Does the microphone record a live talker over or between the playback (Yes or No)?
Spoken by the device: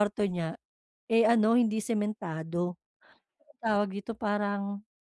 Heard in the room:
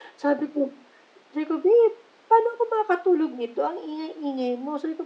Yes